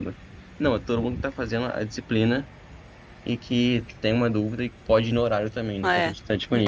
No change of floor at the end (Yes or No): No